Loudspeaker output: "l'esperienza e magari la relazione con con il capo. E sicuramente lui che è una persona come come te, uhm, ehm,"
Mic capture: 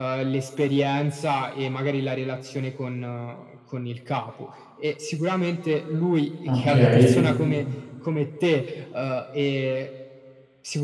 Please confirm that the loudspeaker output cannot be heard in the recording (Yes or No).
No